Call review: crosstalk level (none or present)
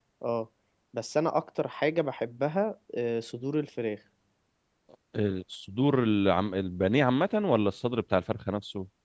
none